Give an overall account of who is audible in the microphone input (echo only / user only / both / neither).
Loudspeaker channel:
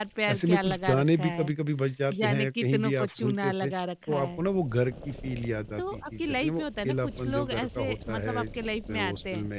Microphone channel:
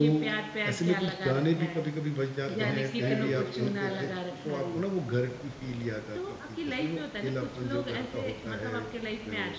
both